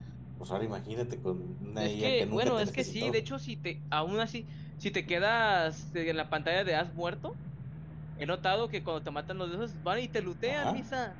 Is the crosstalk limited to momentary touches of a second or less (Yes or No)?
No